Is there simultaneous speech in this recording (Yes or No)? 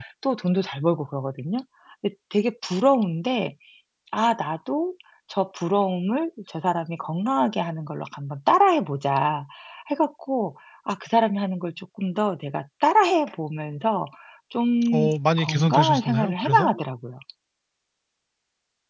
Yes